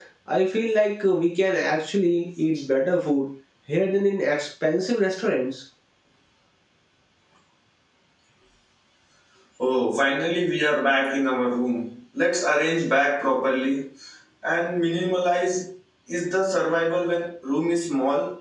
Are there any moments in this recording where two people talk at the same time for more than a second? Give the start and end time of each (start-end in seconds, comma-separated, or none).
none